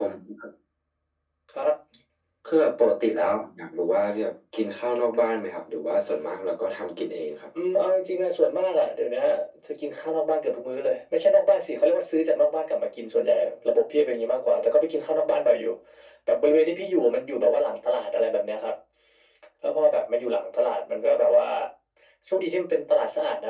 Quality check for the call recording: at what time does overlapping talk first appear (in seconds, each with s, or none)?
none